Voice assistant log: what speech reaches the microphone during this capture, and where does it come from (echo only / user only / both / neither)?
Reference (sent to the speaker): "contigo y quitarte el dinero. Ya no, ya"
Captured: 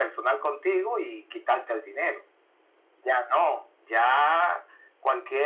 echo only